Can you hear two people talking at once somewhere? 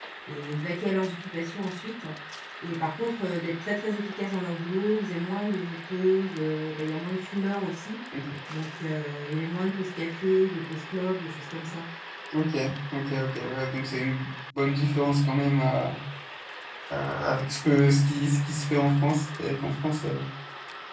No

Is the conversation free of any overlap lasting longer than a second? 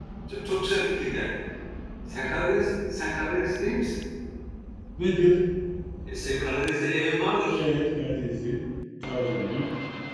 Yes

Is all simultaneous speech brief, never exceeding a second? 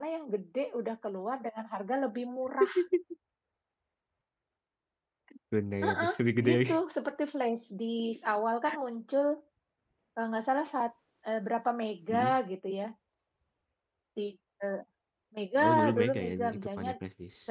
No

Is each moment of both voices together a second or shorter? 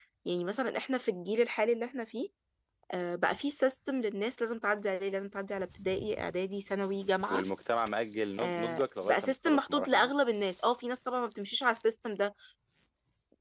No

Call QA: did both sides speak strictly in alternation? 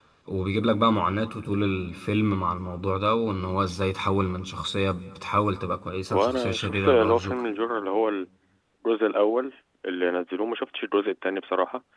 No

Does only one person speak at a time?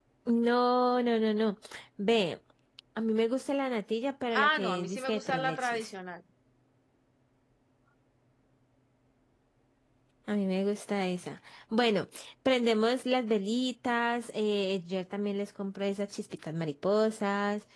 No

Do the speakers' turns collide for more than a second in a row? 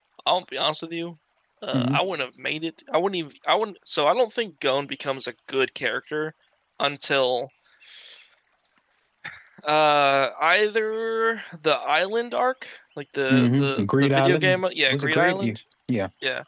Yes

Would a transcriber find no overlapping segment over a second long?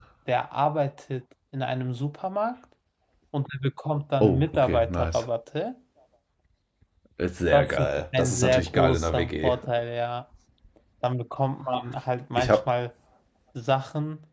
No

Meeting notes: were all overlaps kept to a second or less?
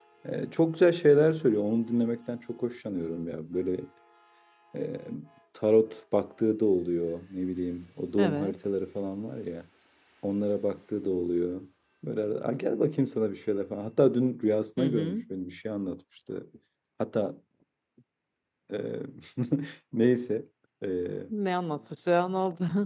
Yes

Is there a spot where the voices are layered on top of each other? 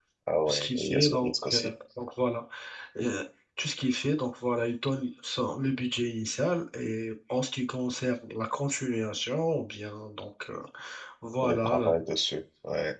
Yes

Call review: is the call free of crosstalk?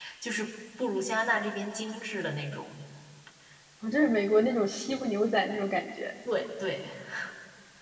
Yes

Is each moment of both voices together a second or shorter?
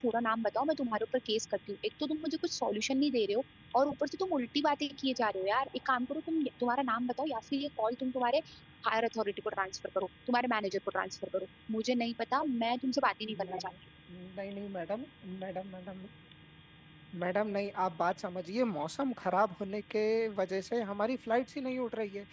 Yes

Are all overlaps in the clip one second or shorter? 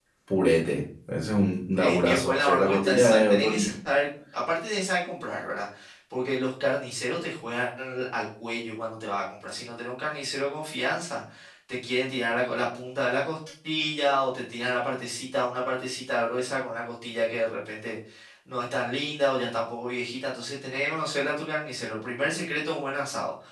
No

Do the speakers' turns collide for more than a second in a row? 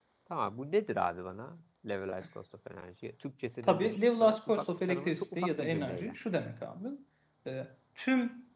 Yes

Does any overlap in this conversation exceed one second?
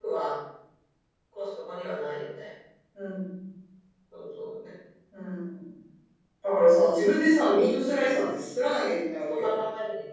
No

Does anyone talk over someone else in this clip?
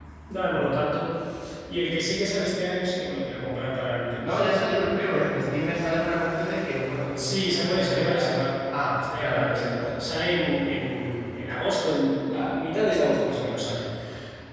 Yes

